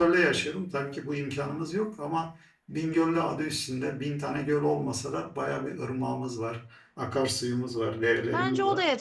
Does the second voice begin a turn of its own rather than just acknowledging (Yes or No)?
Yes